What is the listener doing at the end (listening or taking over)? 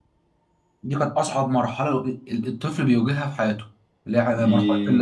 taking over